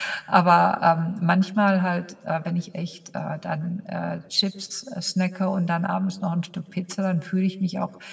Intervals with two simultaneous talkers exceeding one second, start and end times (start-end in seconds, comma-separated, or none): none